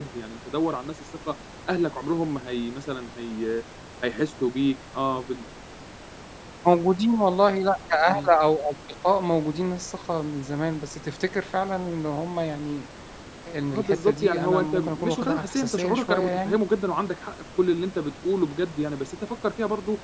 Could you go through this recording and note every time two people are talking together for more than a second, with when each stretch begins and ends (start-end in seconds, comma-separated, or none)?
13.7-16.6